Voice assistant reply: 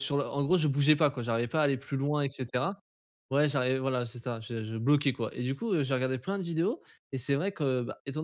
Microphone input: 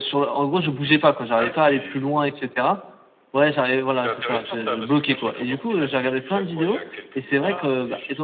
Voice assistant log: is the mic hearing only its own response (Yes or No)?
No